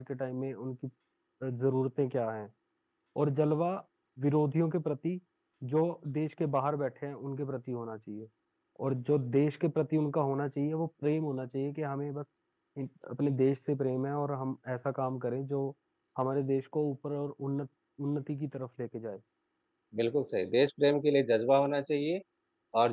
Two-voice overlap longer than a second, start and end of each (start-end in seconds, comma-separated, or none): none